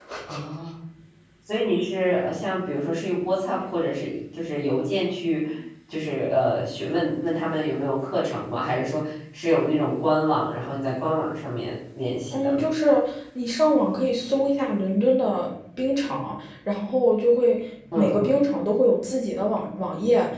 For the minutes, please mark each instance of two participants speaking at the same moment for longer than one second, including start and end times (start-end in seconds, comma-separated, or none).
none